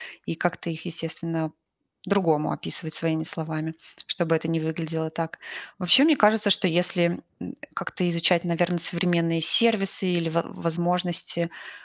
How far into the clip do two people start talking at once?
none

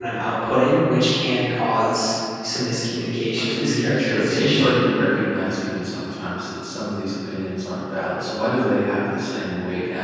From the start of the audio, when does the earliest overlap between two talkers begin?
3.3 s

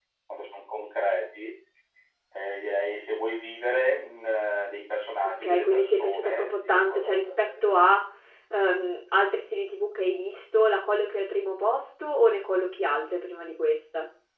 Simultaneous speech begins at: 5.2 s

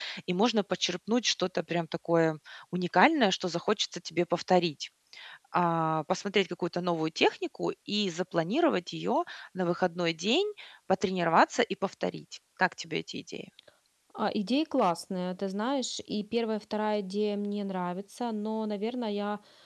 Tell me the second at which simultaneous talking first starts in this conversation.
none

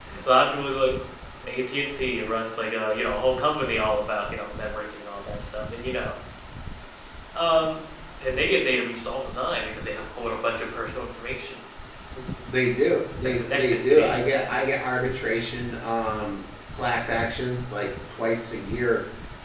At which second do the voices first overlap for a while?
13.2 s

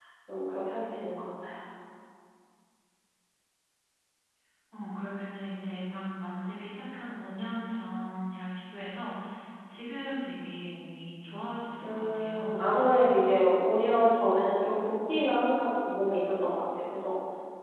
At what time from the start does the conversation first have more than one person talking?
11.8 s

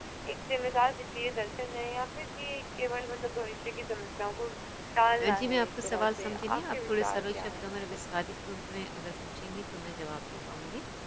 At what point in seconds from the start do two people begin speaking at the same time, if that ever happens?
5.2 s

